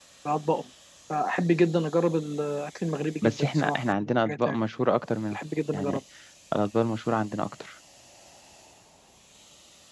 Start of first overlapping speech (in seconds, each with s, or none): 3.2 s